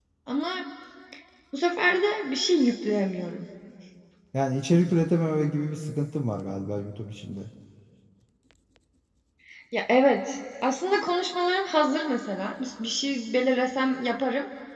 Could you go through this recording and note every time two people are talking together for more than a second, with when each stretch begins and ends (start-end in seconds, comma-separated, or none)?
none